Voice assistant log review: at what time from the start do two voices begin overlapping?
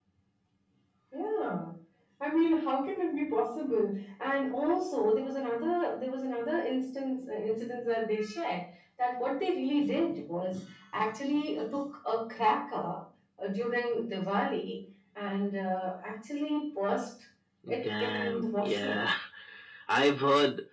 17.8 s

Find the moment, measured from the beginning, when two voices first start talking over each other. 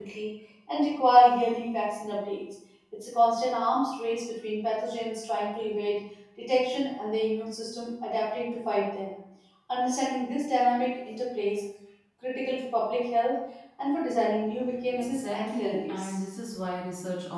14.9 s

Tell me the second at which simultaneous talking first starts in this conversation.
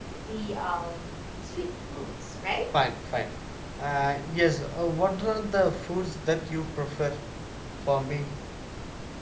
none

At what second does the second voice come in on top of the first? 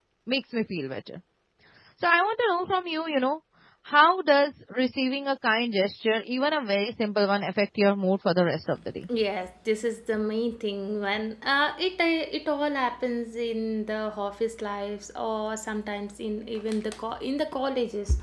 none

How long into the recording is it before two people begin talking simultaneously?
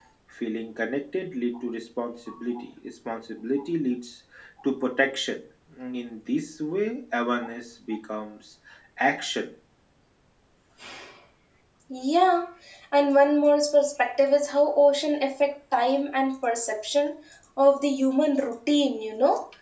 none

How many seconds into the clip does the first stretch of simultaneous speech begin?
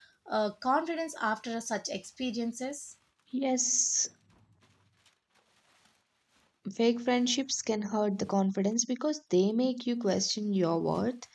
none

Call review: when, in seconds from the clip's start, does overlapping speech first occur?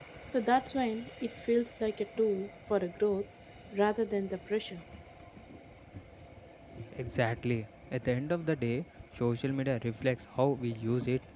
none

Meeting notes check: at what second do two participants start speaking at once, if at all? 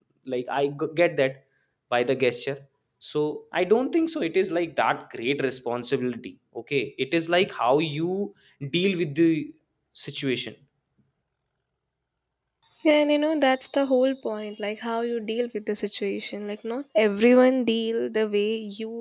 none

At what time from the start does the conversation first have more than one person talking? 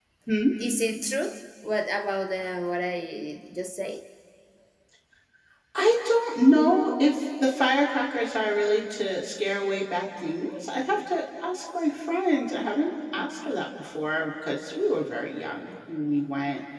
none

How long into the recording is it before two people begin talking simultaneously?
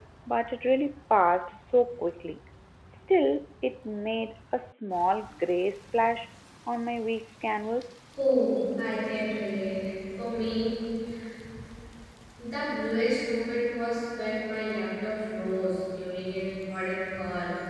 none

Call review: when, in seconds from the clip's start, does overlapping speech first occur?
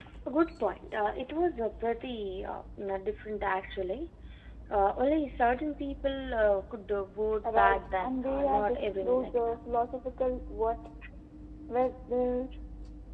7.4 s

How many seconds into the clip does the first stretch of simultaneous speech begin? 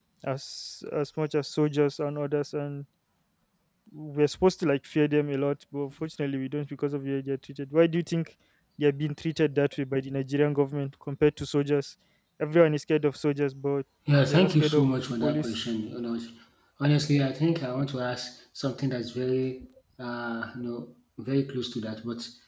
14.1 s

